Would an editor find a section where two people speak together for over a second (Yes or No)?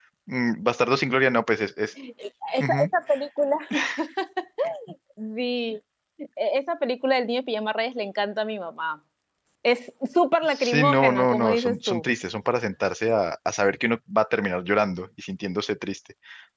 Yes